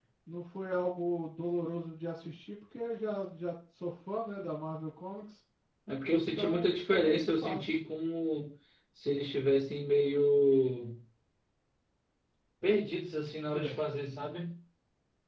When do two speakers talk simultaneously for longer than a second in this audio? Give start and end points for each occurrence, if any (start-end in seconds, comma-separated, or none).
6.1-7.8